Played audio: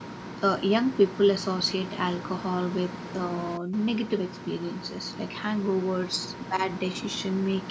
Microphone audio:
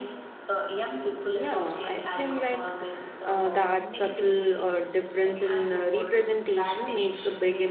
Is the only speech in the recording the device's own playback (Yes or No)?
No